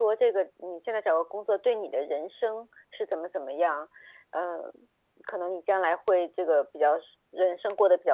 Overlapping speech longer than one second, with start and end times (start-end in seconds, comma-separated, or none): none